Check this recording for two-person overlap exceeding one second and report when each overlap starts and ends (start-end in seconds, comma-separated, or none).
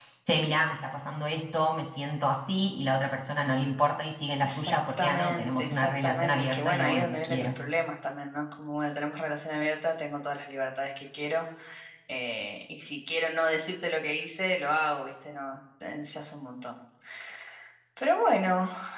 4.4-7.6